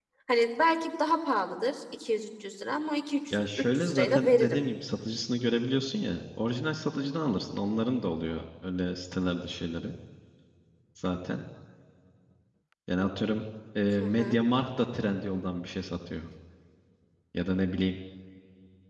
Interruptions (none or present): present